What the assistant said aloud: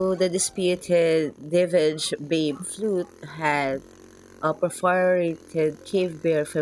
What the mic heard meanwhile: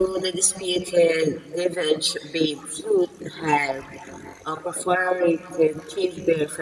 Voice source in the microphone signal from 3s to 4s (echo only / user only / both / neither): echo only